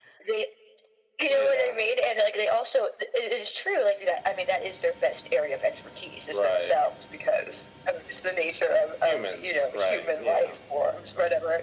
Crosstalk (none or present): present